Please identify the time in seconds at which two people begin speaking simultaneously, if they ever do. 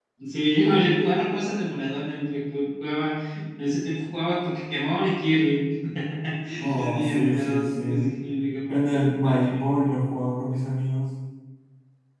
6.7 s

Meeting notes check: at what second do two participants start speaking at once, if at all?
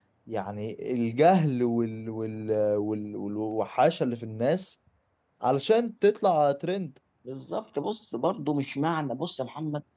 none

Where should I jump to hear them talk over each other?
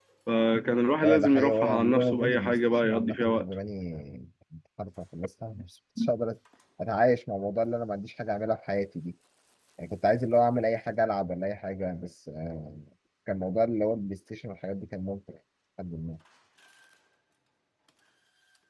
1.0 s

